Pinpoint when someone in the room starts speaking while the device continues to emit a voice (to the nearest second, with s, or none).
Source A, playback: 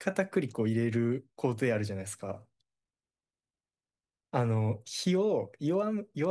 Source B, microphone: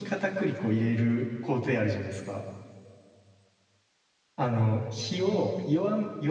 none